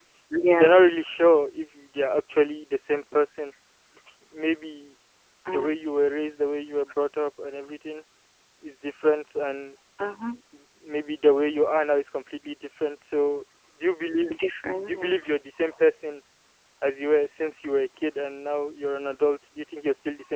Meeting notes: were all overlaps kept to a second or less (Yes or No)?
Yes